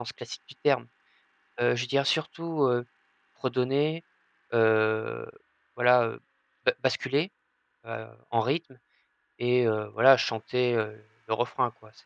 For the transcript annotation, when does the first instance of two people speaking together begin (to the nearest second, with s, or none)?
none